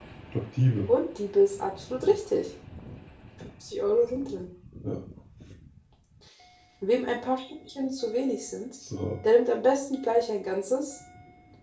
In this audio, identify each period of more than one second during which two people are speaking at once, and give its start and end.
none

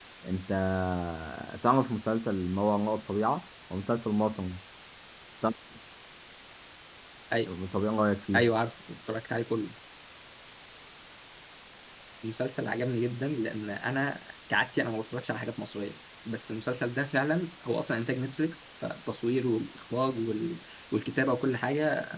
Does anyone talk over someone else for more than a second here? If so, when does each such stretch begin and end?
none

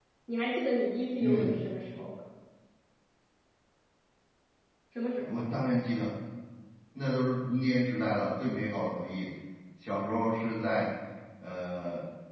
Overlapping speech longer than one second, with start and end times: none

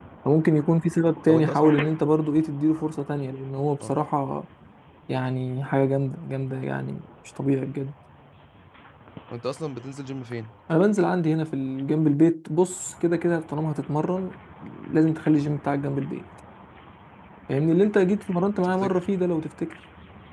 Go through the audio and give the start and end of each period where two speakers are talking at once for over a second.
none

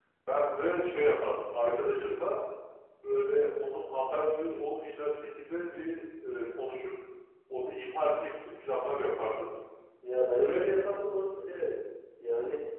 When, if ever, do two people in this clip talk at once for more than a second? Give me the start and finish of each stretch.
none

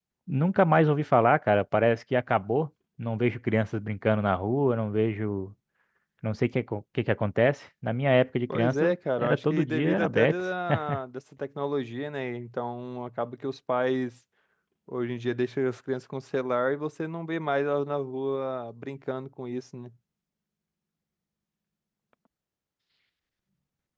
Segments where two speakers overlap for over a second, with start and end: 8.5-10.3

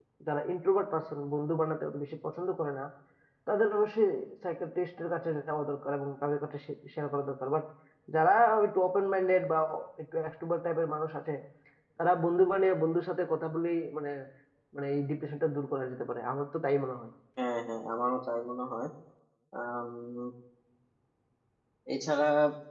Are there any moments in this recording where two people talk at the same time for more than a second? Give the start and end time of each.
none

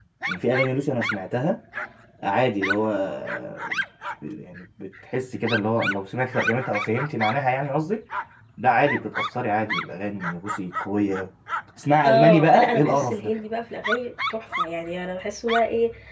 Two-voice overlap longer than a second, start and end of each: 12.1-13.3

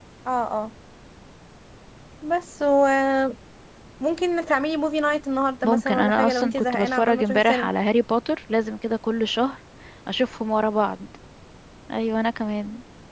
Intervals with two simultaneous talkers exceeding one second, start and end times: 5.6-7.7

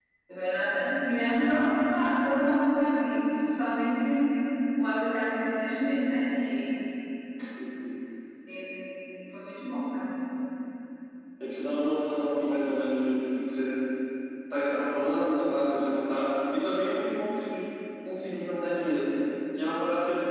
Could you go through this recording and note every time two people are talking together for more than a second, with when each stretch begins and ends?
none

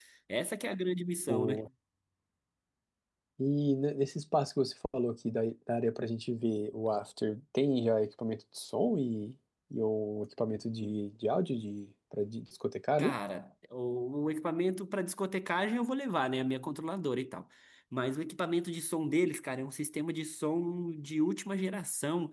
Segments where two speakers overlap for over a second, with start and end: none

